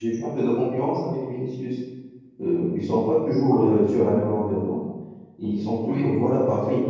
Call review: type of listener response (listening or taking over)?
listening